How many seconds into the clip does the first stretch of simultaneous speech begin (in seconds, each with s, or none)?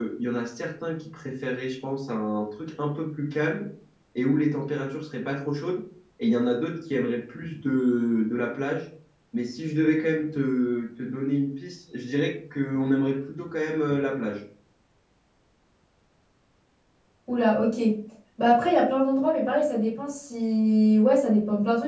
none